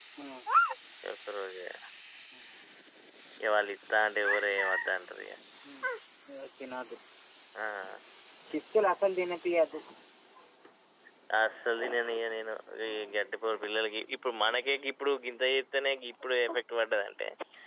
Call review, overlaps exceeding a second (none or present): none